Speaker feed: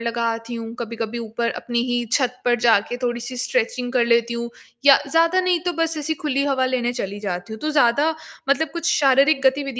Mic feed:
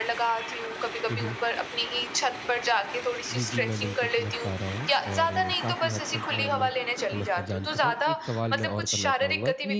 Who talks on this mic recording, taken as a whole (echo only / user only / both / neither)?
both